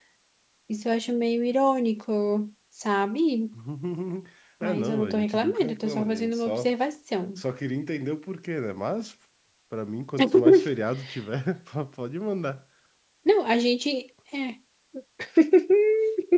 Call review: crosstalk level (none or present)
present